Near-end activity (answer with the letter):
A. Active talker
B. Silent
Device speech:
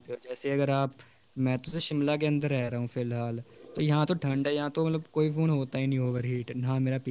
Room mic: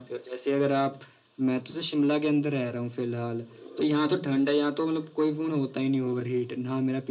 B